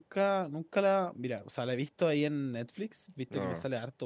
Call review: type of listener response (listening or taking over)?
listening